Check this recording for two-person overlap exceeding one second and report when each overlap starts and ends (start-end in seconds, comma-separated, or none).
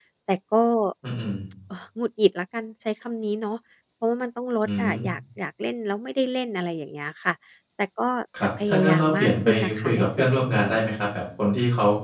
8.4-10.7